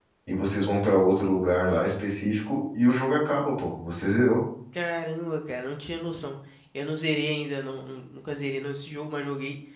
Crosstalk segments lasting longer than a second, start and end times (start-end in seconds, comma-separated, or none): none